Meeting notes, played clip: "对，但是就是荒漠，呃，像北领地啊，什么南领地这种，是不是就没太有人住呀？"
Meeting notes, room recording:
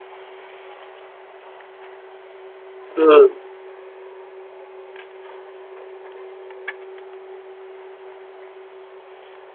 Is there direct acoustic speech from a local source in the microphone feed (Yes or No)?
Yes